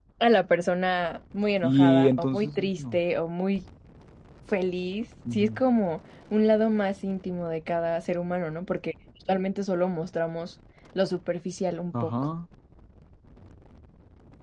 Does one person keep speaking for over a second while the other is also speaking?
Yes, from 1.6 s

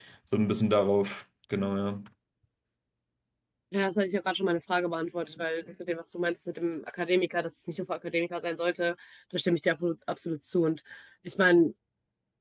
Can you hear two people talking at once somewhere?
No

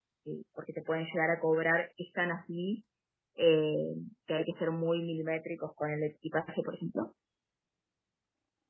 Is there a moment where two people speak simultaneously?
No

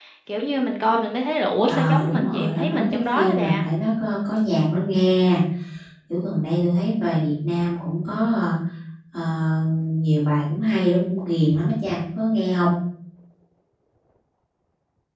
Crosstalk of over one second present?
Yes, from 1.7 s

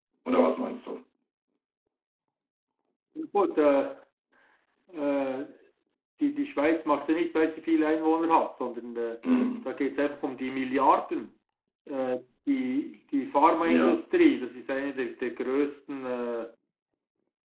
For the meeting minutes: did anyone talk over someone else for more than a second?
No

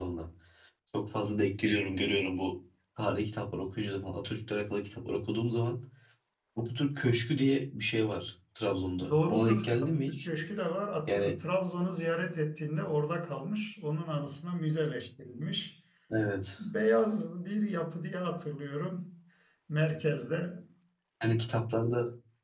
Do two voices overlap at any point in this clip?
Yes, from 9.1 s

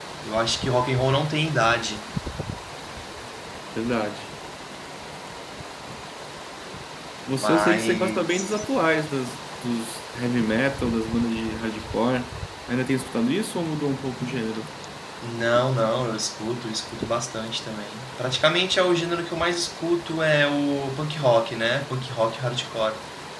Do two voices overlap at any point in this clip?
Yes, from 7.3 s

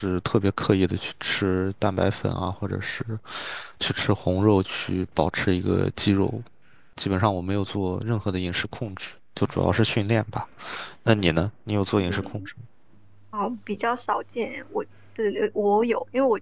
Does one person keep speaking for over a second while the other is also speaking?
No

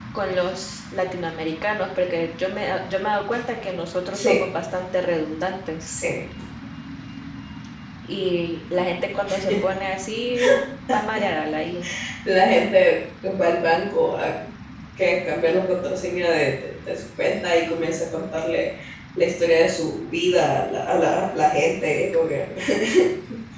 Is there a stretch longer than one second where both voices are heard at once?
No

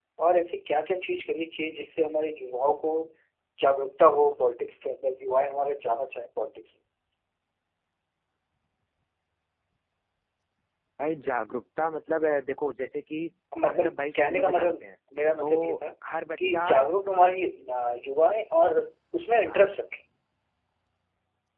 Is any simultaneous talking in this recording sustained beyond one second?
Yes, from 13.6 s

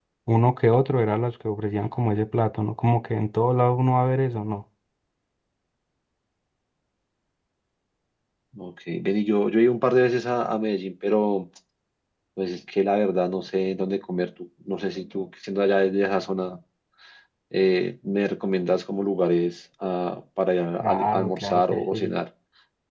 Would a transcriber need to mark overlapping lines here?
Yes, from 20.8 s

